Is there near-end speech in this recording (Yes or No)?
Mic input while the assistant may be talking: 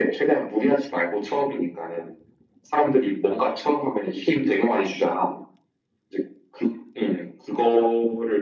No